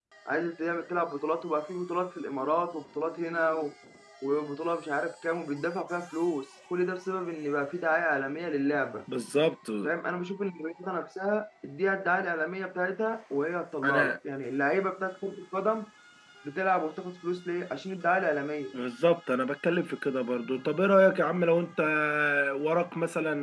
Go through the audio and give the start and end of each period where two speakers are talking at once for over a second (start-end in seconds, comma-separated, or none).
none